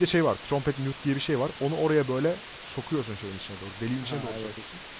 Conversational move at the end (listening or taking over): listening